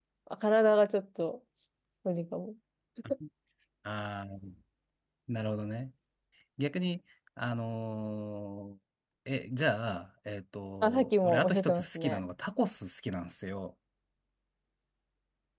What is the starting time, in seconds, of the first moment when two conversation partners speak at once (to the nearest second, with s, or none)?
11 s